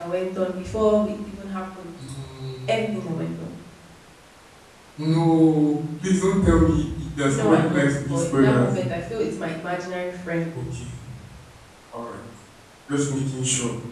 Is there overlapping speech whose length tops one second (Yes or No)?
Yes